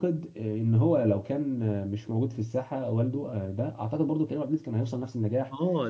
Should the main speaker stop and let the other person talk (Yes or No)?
Yes